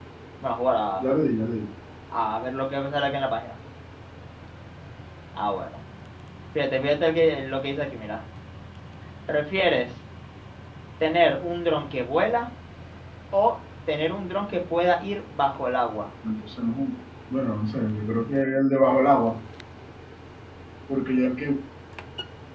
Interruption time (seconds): none

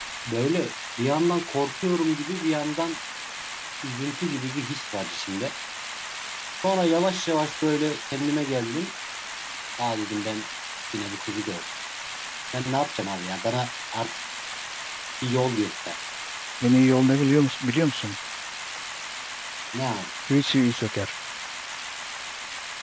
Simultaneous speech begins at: none

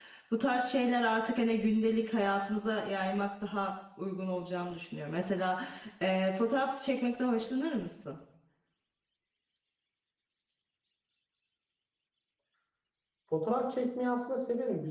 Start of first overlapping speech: none

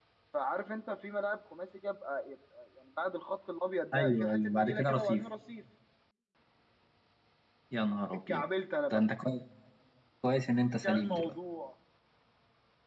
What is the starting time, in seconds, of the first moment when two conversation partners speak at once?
3.9 s

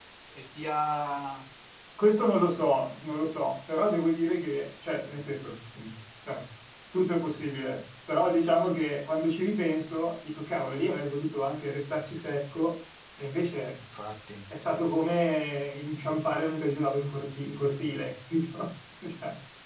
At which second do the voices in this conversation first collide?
none

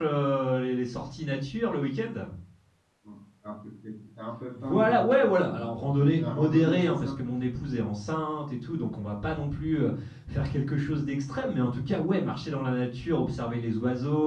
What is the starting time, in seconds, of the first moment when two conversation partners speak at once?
4.5 s

